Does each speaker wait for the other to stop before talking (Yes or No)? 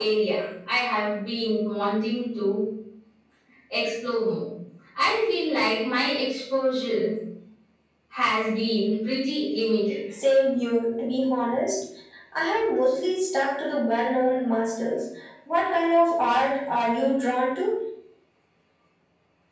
Yes